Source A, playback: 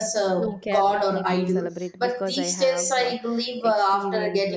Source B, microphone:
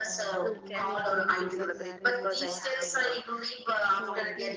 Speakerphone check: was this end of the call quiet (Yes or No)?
No